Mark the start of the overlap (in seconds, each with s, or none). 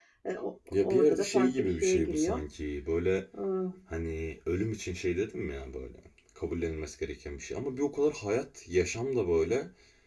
0.7 s